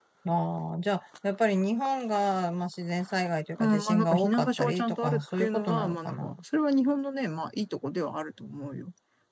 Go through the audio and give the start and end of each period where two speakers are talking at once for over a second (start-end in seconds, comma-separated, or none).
3.6-6.3